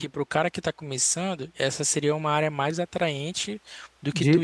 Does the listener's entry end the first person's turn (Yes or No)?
No